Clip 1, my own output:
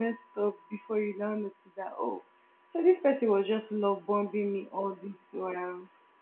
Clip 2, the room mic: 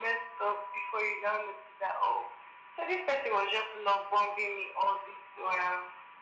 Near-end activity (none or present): none